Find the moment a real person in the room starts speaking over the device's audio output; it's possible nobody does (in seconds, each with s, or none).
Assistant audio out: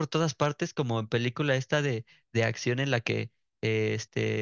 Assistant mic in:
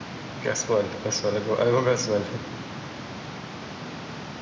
0.4 s